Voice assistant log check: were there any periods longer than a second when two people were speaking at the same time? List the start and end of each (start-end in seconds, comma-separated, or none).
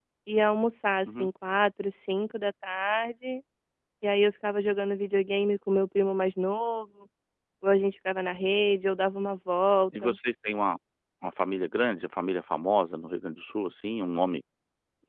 none